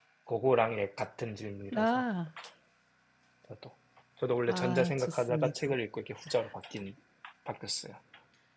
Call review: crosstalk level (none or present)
present